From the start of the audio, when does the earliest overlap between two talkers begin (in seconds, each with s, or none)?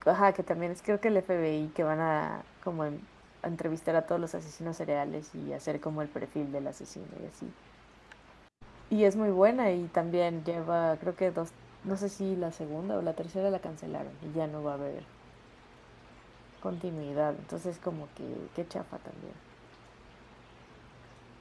none